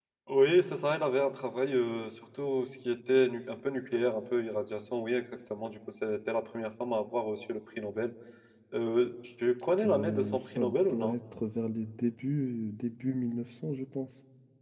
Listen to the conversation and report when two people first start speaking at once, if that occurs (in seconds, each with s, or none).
9.8 s